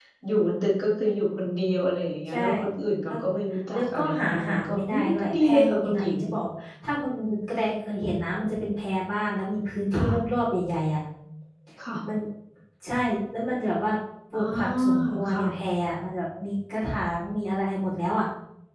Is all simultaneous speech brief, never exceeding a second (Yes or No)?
No